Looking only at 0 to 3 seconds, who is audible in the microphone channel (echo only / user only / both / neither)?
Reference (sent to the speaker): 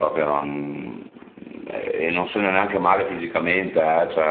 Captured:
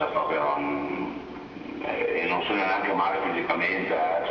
echo only